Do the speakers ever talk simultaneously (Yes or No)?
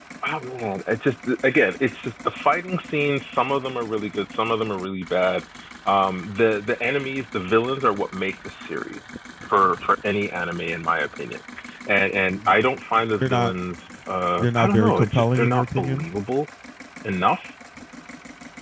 Yes